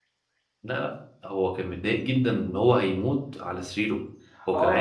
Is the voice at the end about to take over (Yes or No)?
Yes